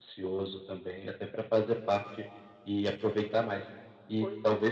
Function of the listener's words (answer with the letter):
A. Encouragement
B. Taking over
A